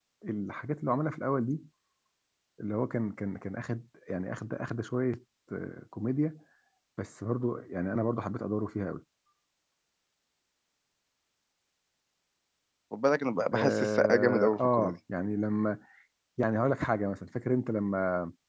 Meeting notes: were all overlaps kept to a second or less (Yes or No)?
No